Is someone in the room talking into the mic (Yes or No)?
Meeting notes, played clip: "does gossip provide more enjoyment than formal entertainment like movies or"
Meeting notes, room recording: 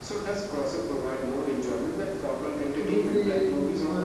Yes